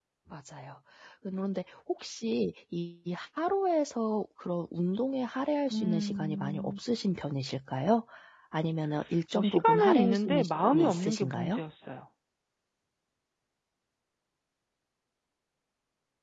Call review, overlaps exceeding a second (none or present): present